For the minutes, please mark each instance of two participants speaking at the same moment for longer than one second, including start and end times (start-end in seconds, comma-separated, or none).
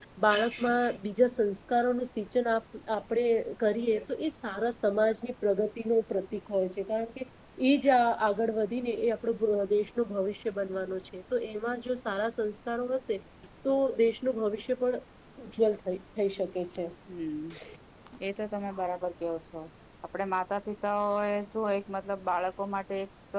none